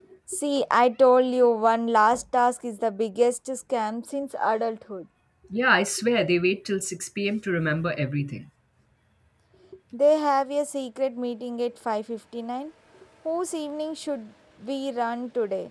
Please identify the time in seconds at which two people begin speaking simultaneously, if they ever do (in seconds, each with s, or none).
none